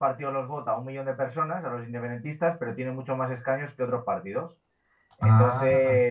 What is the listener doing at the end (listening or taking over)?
listening